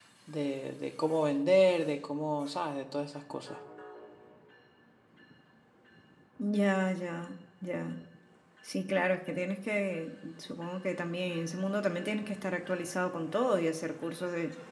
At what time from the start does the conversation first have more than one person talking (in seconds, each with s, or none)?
none